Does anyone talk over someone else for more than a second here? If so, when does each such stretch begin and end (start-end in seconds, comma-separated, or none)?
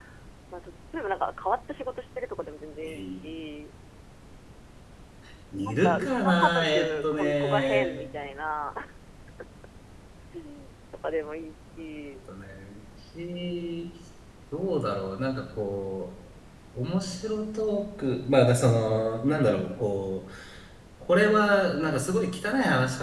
5.6-8.0